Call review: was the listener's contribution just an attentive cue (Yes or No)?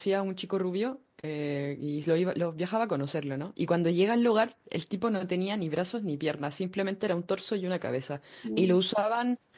Yes